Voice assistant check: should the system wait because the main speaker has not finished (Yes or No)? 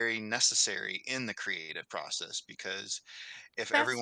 Yes